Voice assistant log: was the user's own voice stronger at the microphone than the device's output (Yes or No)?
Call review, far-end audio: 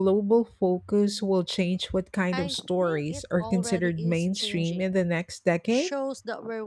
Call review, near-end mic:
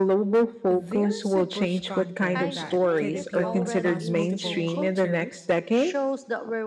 No